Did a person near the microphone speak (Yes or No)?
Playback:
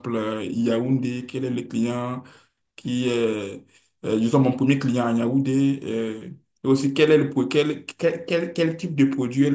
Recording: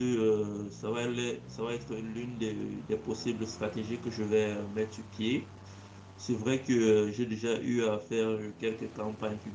Yes